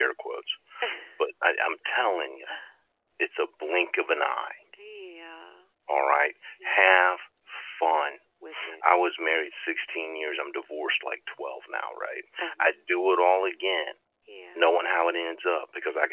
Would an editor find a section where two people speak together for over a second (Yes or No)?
No